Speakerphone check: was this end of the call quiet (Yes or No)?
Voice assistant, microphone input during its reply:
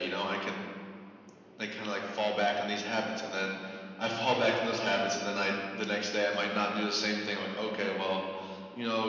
Yes